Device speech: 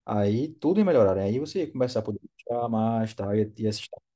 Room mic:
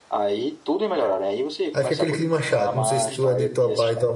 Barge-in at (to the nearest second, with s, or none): 2 s